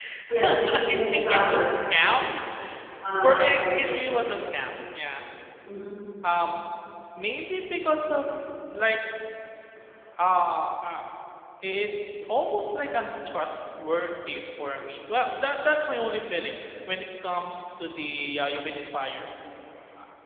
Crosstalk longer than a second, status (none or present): present